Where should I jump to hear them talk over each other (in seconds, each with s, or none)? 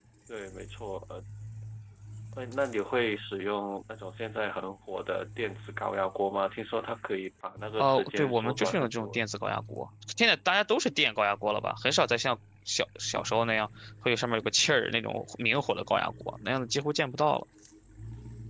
7.8 s